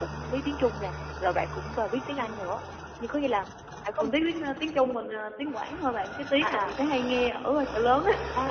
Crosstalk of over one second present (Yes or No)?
No